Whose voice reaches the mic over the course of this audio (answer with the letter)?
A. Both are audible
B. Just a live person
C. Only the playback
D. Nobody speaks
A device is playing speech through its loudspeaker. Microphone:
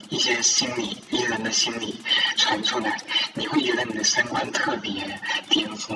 C